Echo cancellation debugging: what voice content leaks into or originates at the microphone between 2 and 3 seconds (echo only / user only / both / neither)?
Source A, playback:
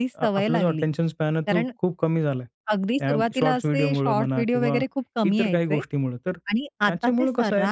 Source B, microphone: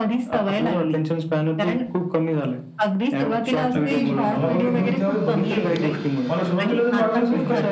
echo only